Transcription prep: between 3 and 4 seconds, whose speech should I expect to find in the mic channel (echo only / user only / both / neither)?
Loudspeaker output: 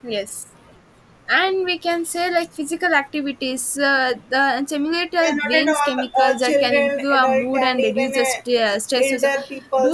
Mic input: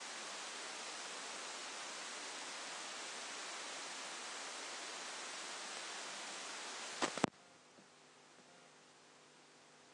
neither